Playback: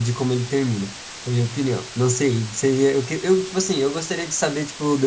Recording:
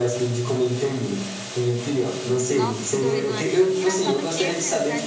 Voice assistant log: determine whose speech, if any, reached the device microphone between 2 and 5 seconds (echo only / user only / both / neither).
both